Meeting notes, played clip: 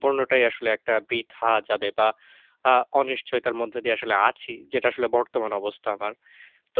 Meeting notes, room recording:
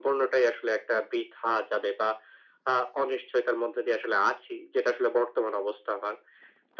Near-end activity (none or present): none